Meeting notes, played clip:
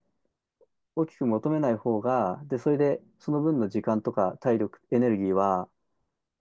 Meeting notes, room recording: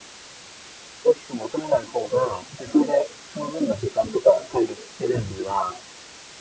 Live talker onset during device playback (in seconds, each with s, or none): none